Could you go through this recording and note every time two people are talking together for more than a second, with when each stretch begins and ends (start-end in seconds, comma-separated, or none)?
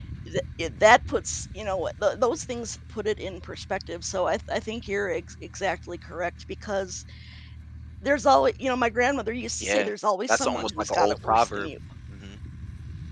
10.3-11.7